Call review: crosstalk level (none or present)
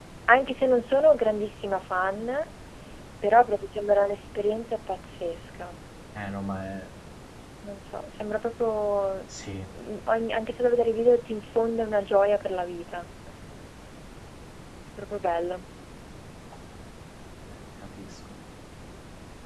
none